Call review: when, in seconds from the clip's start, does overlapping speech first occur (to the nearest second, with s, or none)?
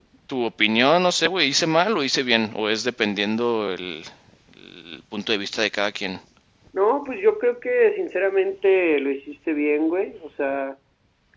none